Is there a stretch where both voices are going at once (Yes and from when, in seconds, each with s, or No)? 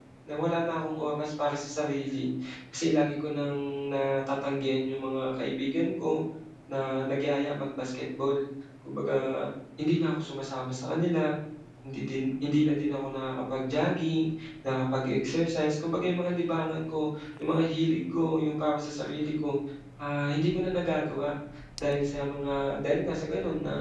No